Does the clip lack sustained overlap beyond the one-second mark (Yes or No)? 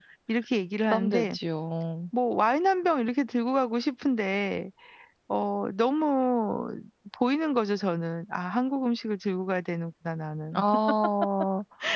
Yes